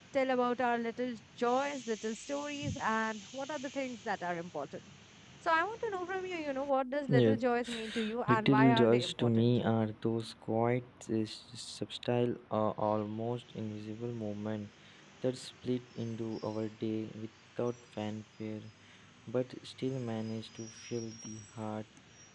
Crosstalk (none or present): present